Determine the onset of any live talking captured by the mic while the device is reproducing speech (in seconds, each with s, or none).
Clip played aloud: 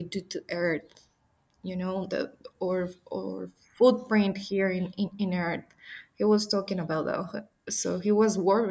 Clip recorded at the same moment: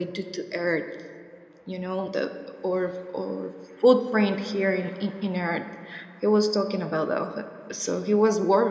none